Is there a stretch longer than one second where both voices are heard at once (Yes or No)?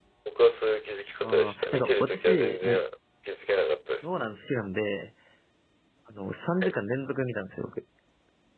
Yes